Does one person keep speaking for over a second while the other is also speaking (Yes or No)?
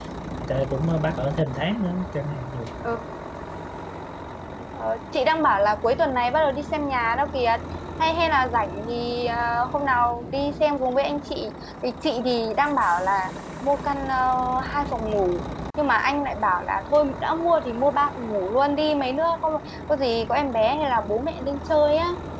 No